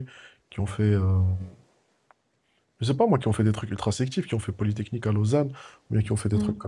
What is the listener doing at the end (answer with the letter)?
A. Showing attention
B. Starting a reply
A